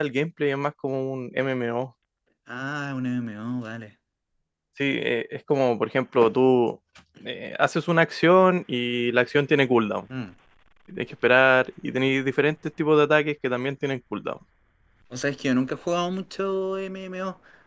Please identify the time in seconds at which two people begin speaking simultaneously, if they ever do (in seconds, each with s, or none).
none